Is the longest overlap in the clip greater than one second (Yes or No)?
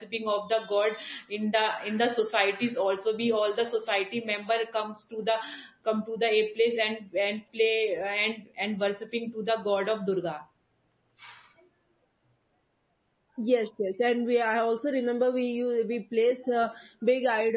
No